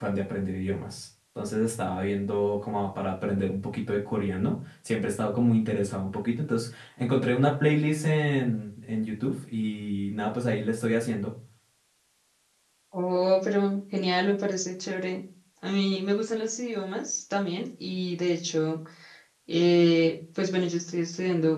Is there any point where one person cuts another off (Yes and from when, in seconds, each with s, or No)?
No